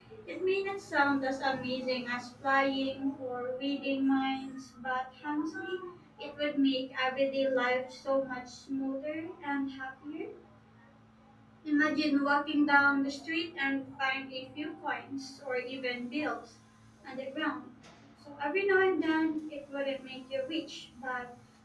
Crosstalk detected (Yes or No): No